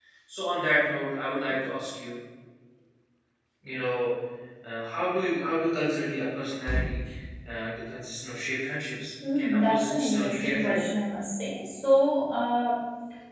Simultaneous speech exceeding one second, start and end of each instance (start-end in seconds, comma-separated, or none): 9.4-10.9